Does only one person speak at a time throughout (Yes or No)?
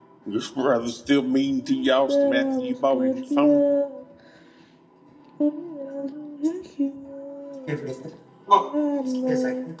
No